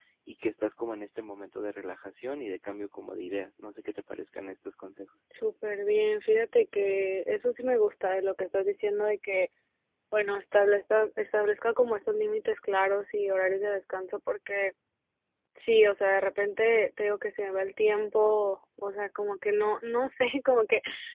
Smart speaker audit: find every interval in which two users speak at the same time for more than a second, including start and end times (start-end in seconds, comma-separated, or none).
none